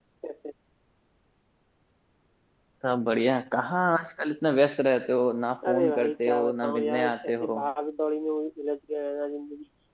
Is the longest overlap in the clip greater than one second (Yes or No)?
Yes